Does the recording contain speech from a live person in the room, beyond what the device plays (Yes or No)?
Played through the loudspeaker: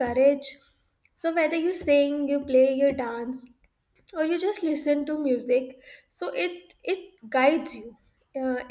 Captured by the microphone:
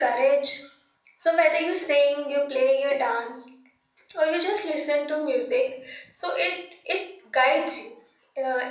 No